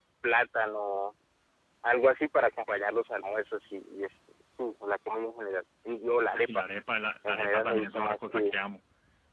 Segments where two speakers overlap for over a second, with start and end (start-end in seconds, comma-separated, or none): 7.3-8.5